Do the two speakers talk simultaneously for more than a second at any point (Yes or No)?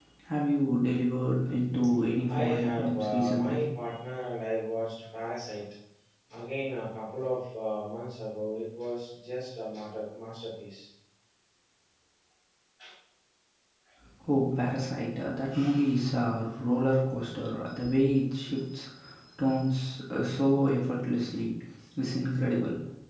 Yes